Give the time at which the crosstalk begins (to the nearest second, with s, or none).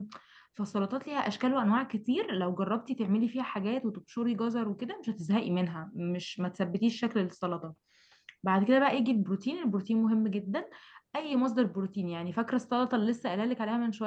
none